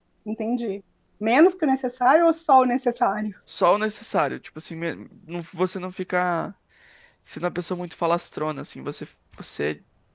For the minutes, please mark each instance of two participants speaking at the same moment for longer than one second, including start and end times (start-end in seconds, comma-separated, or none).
none